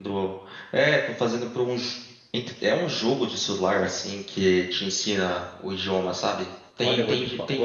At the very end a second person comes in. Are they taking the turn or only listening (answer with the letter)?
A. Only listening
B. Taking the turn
B